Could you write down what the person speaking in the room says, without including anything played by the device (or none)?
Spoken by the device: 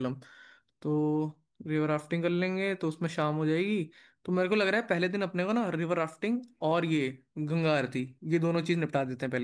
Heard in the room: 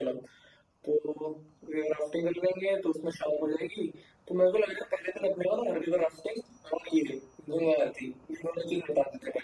none